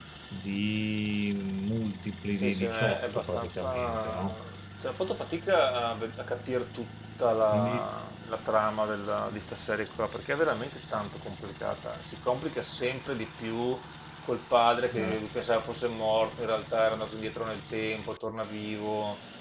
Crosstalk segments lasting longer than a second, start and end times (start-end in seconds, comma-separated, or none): 2.3-4.2